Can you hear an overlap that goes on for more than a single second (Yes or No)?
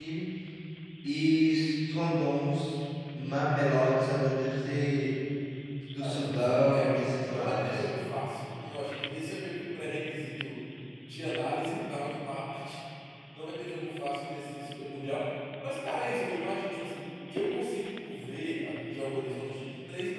Yes